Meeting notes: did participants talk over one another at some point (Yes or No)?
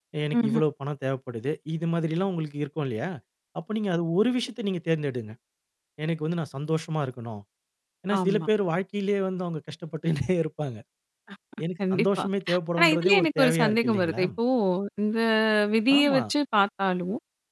Yes